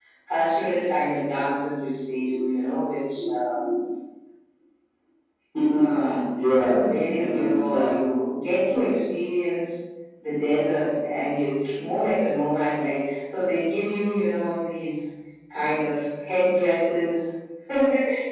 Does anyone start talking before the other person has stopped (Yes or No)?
Yes